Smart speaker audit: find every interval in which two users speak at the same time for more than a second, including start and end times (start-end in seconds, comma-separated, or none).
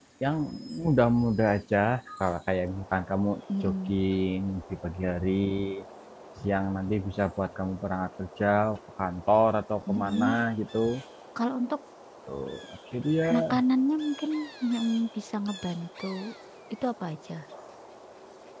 none